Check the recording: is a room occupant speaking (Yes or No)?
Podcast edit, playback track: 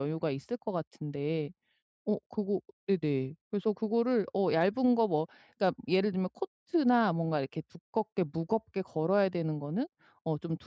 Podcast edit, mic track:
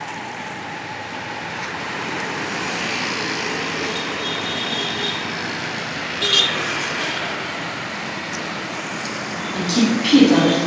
Yes